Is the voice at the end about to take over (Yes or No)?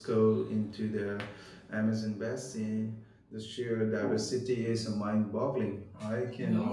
No